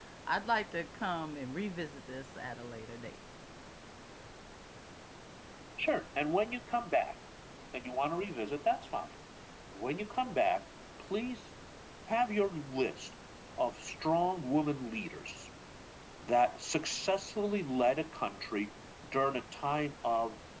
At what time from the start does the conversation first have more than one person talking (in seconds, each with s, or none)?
none